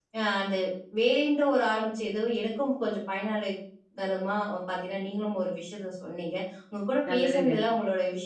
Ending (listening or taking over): listening